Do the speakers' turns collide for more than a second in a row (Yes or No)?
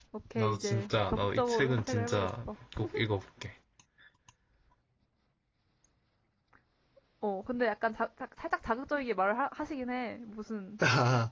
Yes